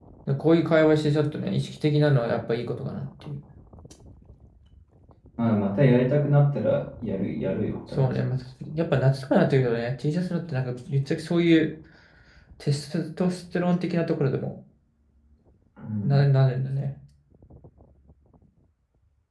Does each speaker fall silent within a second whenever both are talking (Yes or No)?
Yes